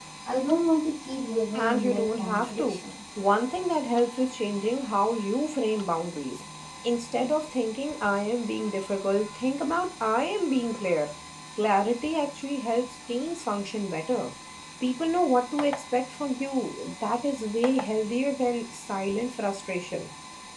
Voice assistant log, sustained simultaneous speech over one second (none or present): present